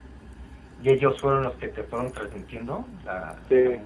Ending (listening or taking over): taking over